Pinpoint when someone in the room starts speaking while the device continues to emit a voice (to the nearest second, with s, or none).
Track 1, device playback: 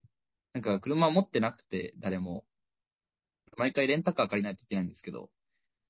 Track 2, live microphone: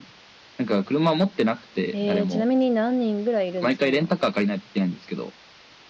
2 s